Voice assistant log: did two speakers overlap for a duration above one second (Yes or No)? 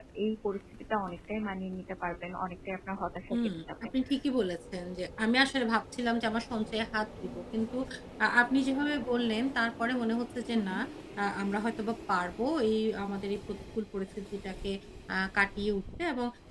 No